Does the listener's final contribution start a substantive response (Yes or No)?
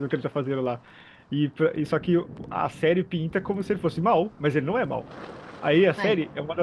No